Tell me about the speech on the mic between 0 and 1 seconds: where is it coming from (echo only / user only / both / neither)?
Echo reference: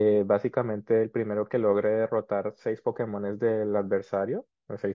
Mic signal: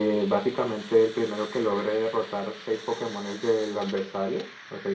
echo only